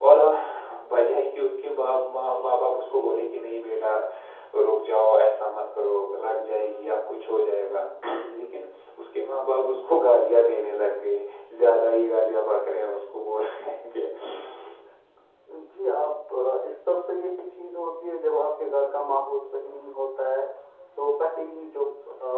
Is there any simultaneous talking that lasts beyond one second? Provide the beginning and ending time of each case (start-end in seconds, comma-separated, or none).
none